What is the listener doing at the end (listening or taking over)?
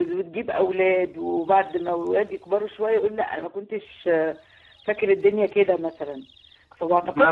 listening